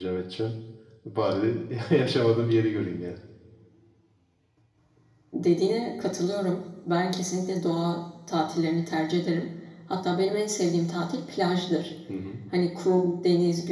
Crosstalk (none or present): none